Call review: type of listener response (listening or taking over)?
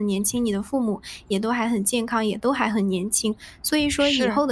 listening